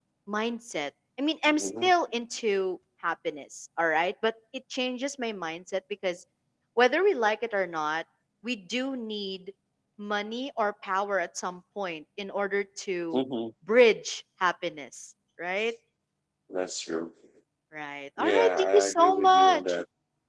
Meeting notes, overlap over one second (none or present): present